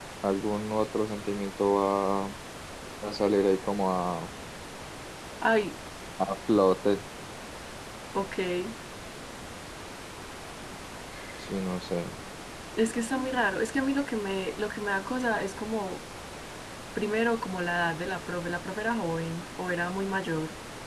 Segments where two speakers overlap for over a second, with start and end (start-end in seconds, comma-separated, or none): none